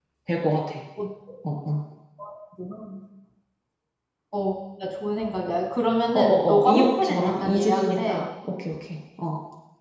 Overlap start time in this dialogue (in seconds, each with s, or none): 6.1 s